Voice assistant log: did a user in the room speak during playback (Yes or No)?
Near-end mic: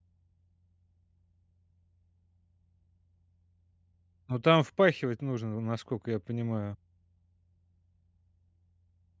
Yes